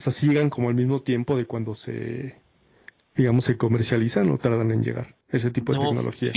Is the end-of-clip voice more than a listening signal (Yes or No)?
Yes